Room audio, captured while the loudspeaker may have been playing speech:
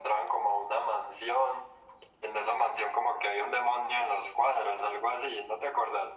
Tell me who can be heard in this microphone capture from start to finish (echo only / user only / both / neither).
echo only